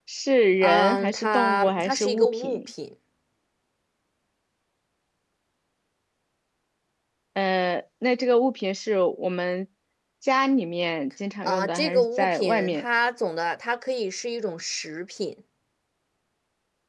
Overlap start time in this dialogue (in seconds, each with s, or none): 0.6 s